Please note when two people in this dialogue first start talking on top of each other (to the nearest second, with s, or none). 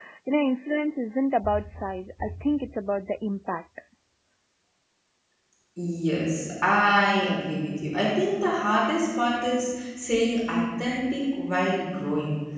none